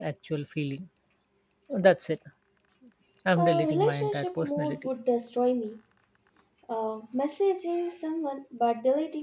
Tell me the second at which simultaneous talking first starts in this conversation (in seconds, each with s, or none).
3.4 s